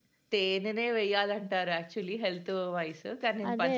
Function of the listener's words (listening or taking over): listening